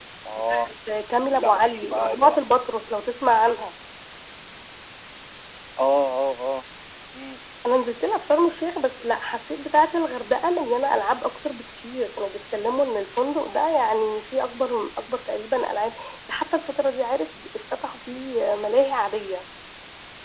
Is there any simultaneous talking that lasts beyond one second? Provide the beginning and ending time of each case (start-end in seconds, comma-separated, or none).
1.2-2.4